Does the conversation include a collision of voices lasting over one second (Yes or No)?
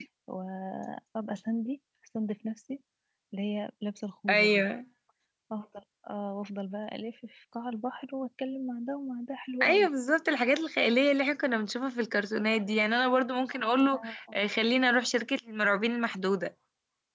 No